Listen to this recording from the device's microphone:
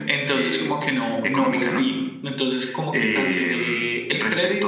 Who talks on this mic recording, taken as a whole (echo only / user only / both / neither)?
echo only